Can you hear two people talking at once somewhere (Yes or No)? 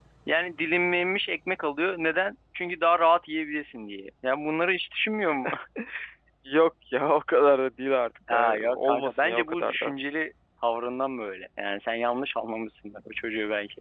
Yes